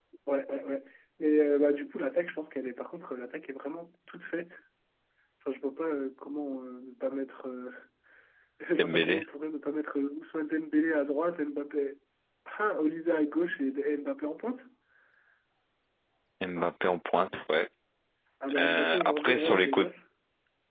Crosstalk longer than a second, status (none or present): present